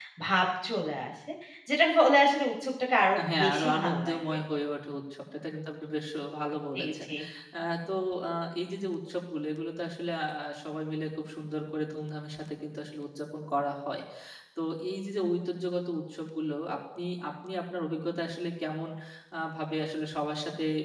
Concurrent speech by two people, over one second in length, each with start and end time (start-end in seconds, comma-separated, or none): 3.2-4.4